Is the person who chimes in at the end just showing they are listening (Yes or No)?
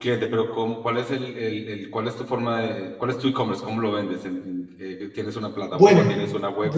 No